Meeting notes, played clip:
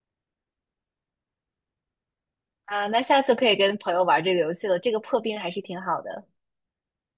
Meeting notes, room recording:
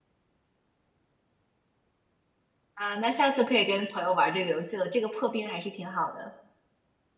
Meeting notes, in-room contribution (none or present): none